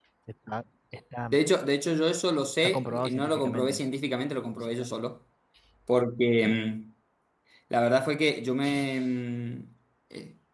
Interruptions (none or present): present